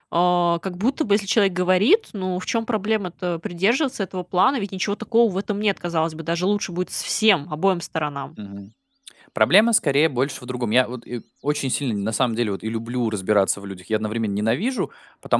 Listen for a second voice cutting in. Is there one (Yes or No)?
No